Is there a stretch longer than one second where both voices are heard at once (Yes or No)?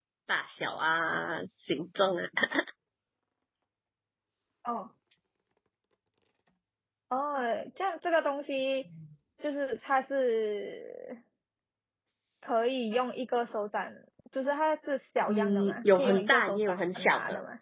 Yes